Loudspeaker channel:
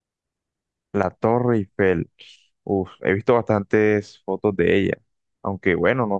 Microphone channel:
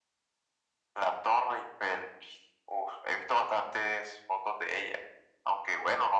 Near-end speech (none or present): none